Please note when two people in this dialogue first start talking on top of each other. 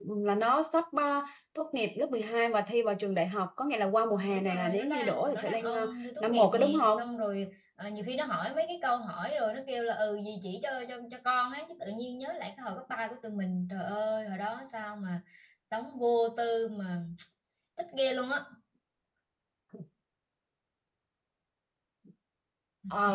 4.1 s

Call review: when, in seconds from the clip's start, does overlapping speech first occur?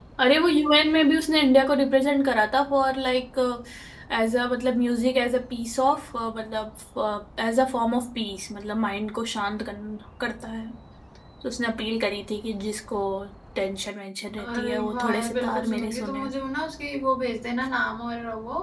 14.4 s

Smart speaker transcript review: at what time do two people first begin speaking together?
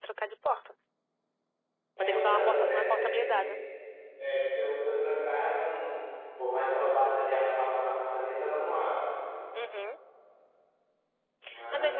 2.0 s

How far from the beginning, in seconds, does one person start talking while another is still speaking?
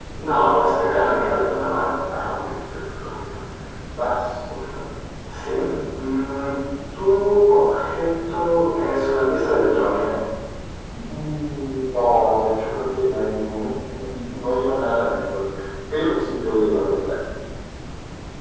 none

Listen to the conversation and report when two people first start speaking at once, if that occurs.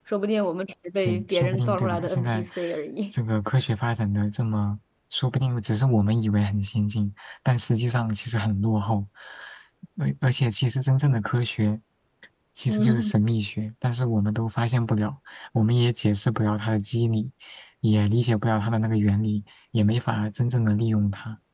1.1 s

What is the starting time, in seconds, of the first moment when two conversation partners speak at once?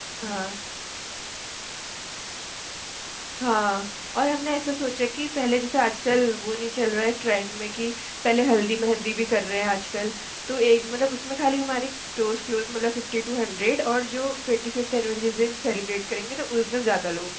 none

